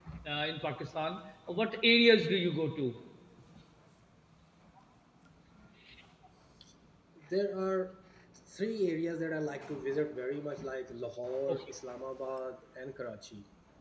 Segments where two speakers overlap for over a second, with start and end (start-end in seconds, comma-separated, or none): none